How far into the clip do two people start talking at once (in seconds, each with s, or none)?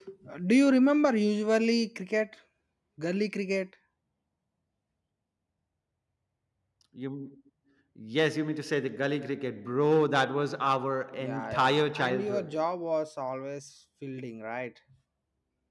11.1 s